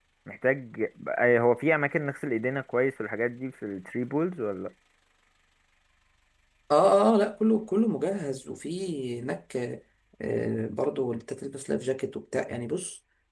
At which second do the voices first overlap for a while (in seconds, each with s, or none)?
none